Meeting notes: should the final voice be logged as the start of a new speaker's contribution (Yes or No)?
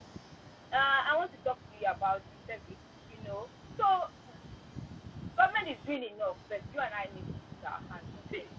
Yes